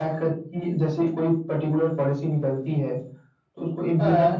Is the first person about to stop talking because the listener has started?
No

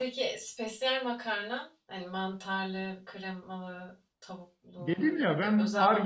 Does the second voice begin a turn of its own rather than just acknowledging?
Yes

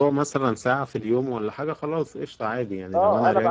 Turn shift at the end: Yes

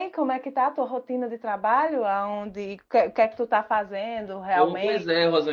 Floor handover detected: Yes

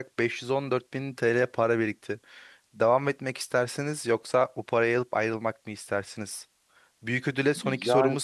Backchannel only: Yes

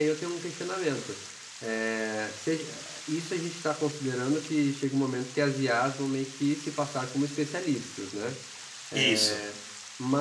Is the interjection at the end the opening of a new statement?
No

